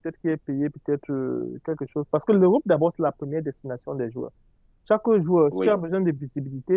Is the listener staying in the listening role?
Yes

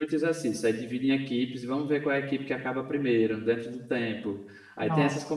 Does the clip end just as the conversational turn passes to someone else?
No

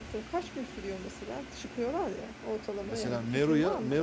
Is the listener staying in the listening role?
No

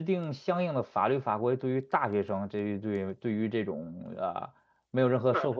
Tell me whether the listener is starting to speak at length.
No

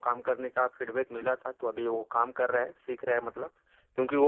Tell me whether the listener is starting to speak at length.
No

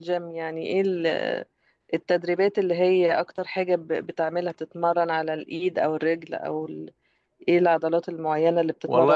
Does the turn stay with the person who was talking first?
No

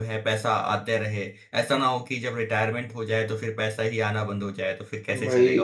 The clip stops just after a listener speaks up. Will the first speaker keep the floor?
No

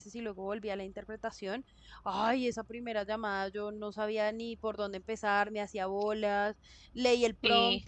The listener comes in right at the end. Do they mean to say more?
No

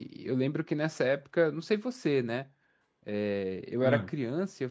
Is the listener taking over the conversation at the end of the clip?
No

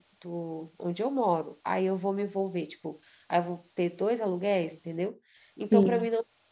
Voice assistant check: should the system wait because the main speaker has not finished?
Yes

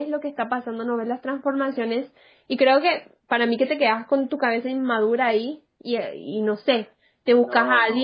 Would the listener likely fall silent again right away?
Yes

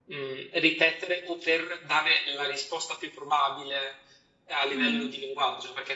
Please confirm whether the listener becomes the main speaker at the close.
No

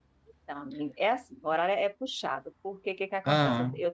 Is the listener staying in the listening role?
Yes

